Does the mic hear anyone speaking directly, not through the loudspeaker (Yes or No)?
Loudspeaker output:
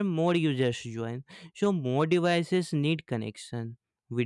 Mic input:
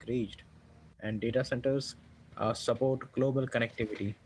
Yes